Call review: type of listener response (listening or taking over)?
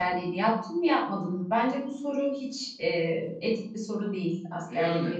taking over